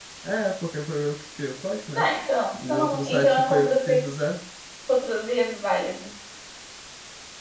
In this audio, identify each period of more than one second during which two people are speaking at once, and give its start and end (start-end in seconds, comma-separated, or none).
2.6-4.1